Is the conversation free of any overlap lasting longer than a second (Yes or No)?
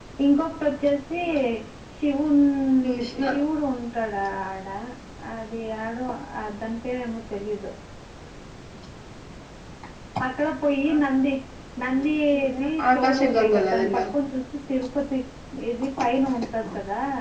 No